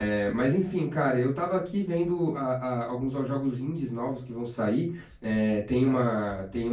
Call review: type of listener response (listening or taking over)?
listening